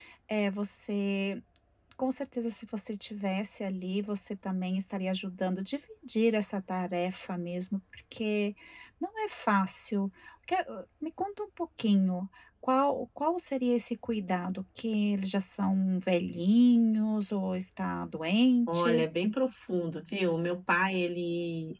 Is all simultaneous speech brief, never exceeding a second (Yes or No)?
Yes